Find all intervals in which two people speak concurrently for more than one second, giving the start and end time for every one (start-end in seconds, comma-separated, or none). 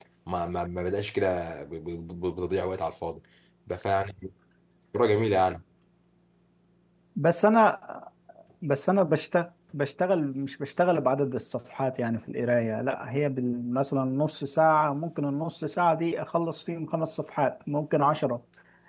none